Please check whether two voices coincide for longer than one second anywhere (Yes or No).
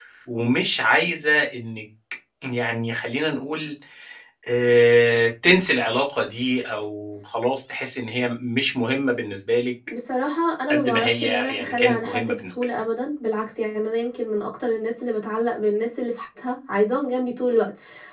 Yes